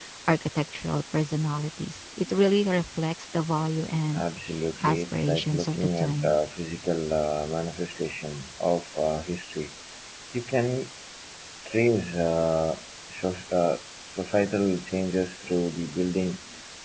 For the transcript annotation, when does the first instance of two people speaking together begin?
4.8 s

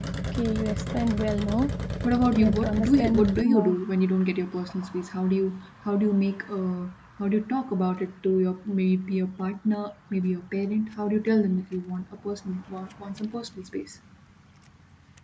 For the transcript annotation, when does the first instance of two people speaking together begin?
2.3 s

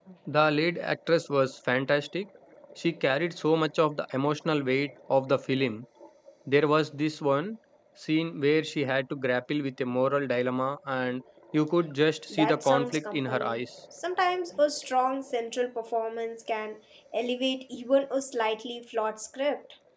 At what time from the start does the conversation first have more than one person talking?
12.3 s

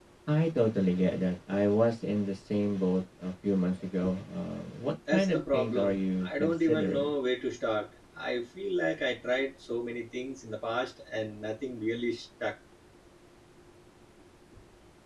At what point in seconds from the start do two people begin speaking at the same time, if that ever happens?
5.1 s

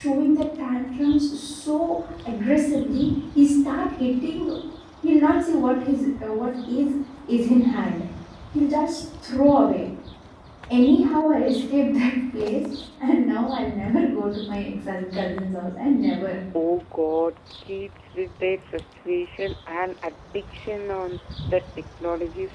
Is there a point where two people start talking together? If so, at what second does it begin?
none

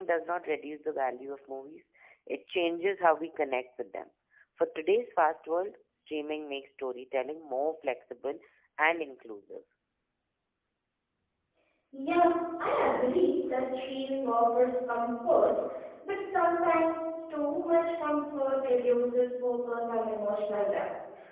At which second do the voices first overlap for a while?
none

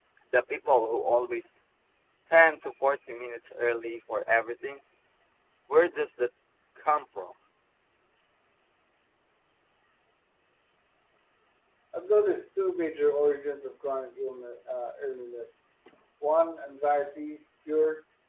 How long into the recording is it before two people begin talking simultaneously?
none

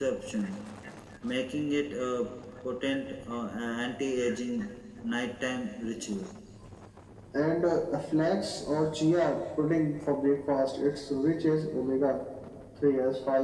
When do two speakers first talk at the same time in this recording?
none

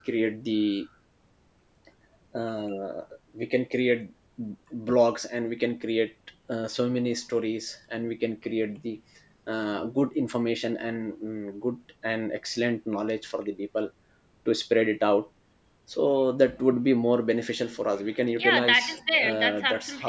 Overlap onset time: 18.4 s

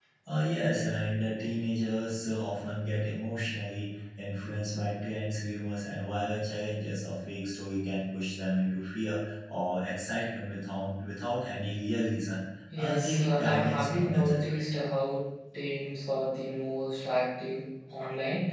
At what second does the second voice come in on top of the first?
12.7 s

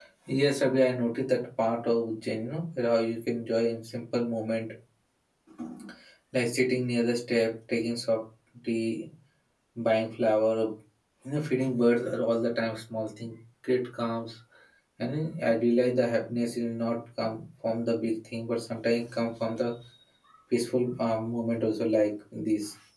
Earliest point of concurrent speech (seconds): none

